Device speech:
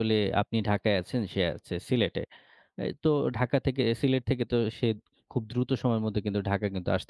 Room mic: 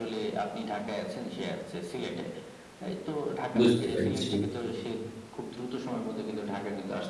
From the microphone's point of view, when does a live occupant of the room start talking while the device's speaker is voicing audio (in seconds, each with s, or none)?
3.6 s